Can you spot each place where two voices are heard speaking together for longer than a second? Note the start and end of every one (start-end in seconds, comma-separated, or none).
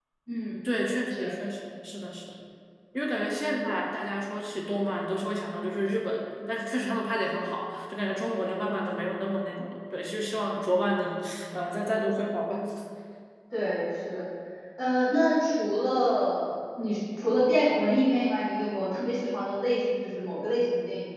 none